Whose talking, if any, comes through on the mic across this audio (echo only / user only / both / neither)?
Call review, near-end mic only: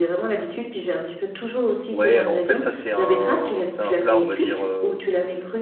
both